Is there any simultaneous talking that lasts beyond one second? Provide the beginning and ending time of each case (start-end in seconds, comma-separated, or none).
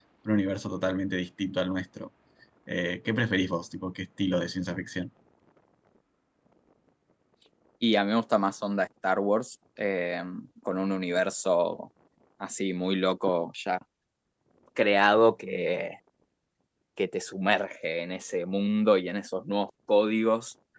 none